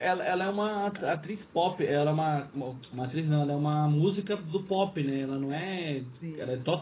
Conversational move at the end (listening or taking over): listening